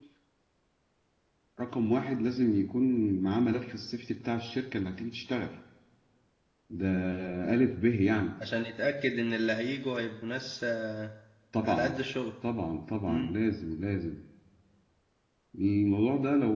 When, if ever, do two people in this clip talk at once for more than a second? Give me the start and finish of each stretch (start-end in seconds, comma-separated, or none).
none